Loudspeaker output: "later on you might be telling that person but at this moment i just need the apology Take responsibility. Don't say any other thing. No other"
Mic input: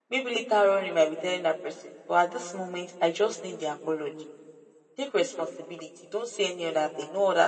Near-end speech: none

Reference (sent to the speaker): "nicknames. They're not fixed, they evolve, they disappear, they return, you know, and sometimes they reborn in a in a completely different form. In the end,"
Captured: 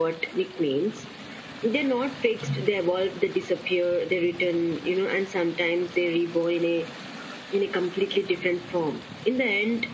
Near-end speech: none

